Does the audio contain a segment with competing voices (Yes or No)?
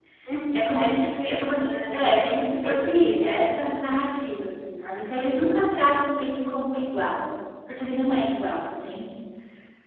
Yes